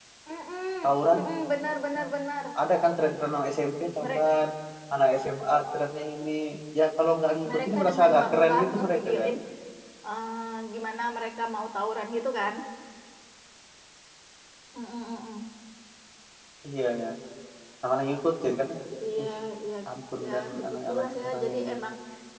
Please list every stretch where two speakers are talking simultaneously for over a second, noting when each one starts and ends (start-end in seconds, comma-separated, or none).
7.5-9.3, 20.2-21.7